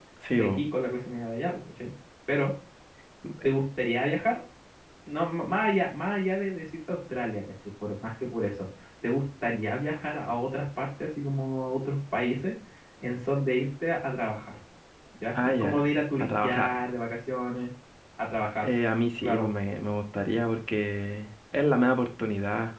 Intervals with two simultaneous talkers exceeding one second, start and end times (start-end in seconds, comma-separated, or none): 15.3-16.8